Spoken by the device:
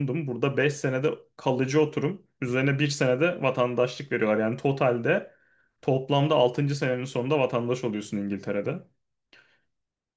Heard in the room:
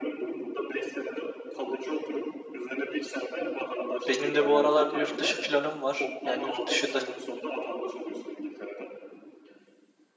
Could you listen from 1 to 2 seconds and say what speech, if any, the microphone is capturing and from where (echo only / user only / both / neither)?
echo only